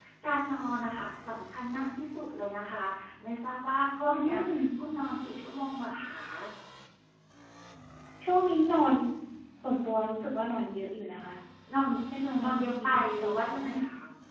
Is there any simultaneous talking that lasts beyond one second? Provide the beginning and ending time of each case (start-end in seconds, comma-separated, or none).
12.4-13.6